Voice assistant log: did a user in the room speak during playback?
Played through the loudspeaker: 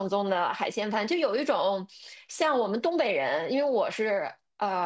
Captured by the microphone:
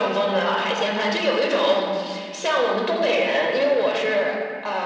No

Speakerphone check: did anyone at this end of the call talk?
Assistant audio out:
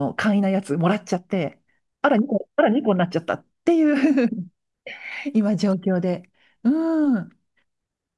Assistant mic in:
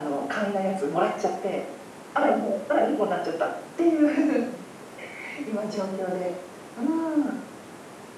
No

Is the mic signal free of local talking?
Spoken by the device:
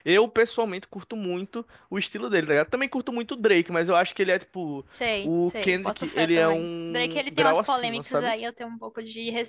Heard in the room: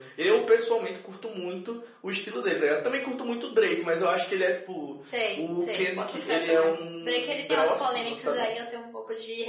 Yes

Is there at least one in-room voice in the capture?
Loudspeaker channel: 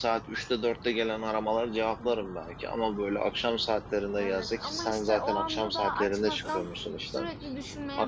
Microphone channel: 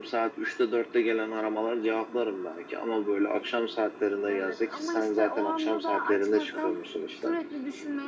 No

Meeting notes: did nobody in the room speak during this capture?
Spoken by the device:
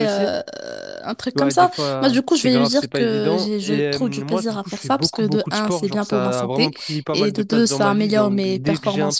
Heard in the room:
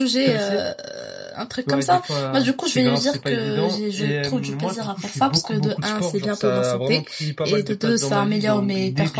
Yes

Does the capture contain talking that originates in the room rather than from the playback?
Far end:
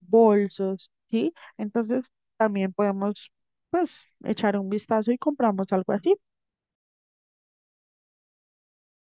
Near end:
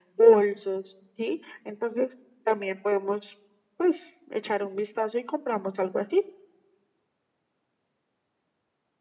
No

